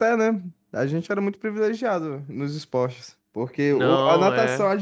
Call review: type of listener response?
listening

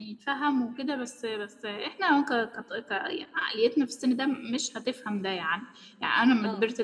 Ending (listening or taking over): listening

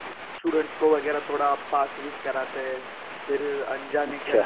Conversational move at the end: listening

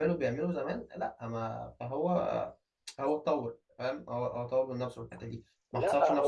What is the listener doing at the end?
taking over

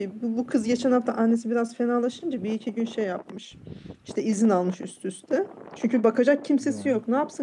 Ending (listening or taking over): listening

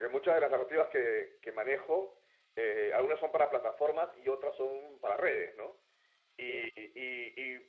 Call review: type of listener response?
listening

